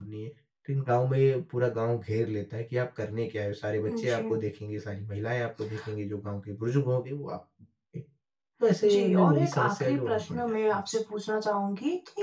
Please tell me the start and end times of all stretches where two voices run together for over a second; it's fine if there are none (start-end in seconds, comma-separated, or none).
8.9-10.8